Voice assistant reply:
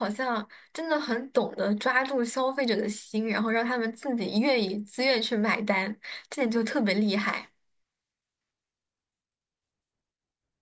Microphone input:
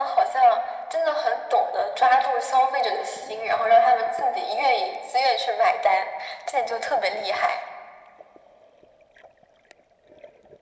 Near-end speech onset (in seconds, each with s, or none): none